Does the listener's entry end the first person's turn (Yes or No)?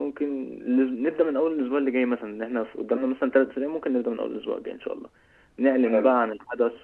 No